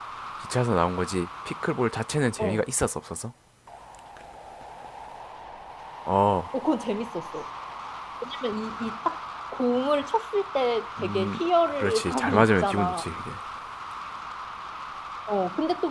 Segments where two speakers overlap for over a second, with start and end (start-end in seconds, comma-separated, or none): 11.0-13.0